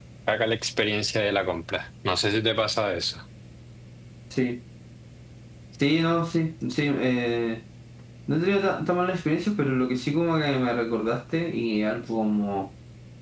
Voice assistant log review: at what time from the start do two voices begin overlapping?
none

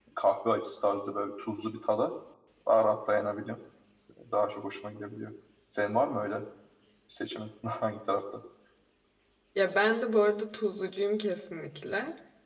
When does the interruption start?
none

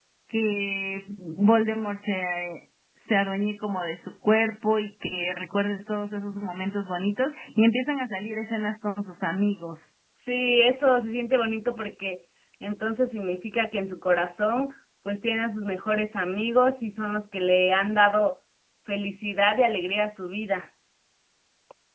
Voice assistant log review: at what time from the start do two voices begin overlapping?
none

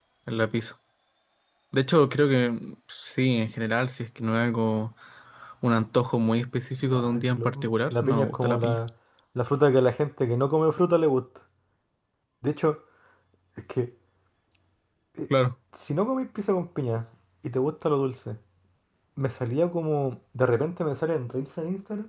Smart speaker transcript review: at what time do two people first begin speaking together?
7 s

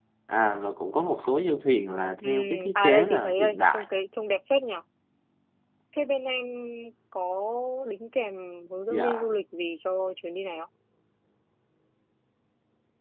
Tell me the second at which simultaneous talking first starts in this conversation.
2 s

